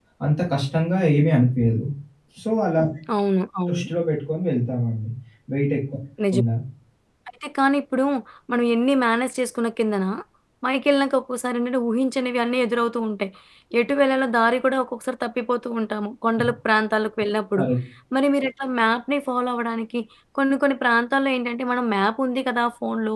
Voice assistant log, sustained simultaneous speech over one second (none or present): none